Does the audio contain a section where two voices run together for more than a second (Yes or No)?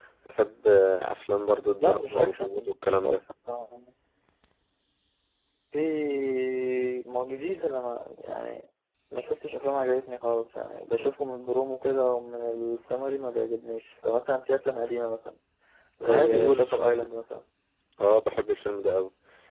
Yes